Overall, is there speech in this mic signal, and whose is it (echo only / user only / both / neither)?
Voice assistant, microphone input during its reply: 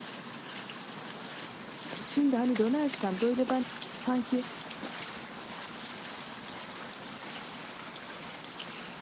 user only